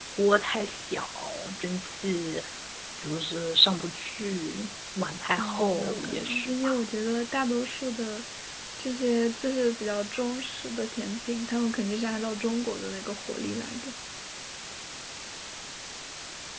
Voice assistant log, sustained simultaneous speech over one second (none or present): present